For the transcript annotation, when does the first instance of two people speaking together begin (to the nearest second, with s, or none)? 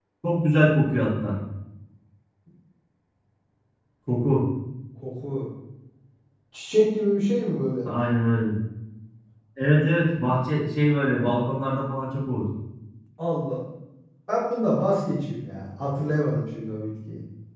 none